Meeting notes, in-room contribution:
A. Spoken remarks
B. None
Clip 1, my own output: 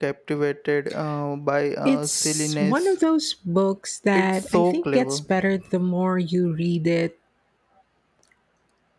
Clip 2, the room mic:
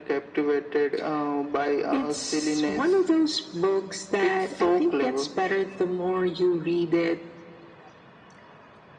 B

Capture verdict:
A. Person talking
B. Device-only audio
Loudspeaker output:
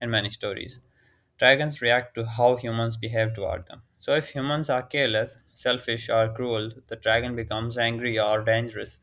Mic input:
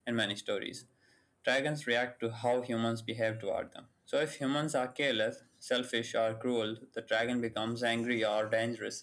B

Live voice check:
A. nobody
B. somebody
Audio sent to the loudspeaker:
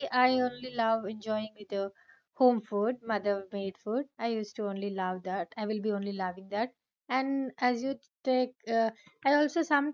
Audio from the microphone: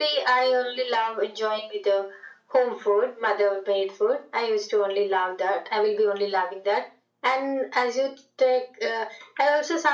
A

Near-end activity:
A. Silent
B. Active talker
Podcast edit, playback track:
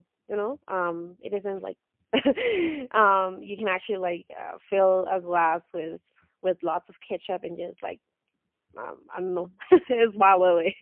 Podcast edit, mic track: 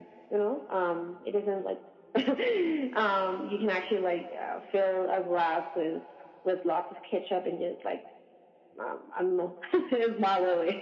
A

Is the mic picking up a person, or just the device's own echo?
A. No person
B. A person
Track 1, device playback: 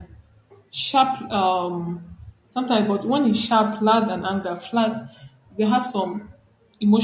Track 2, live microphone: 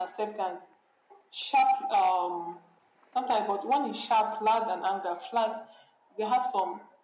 A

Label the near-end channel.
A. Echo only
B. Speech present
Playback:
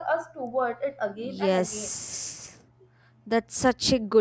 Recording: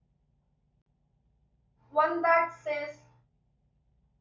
B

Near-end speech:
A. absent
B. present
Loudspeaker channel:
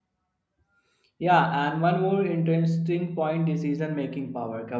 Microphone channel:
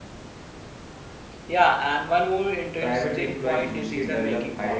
B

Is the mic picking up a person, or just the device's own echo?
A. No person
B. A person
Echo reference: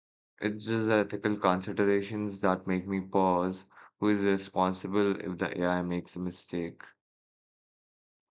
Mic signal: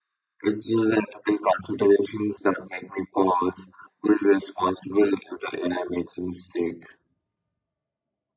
A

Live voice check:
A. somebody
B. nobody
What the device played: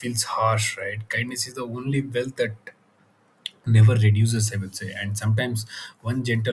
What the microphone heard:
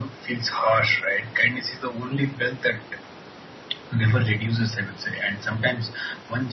B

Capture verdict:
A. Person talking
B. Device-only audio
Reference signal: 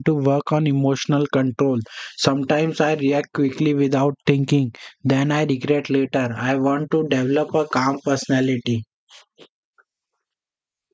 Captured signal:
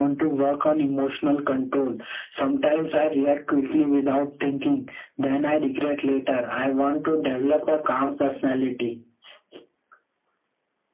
B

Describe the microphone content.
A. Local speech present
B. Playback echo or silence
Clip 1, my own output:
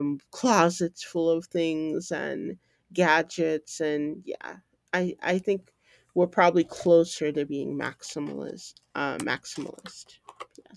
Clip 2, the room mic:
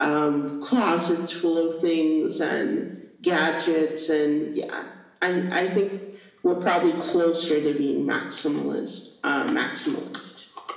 B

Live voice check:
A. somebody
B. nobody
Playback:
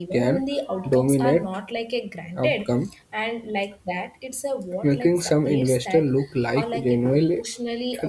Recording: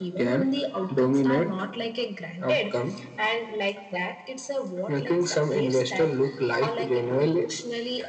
B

